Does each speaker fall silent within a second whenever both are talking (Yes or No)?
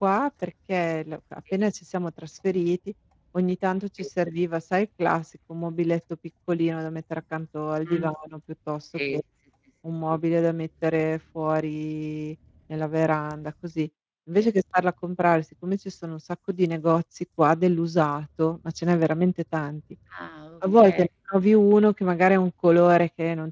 Yes